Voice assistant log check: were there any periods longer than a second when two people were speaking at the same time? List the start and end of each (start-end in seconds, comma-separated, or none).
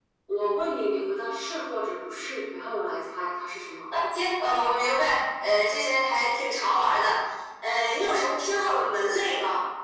none